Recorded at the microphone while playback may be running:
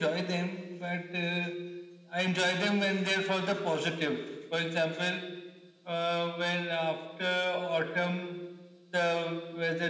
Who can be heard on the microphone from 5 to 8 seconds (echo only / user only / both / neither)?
echo only